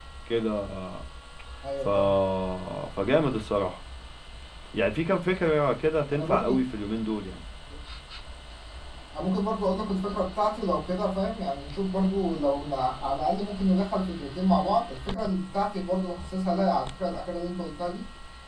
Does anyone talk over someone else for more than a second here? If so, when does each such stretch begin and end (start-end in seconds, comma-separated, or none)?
none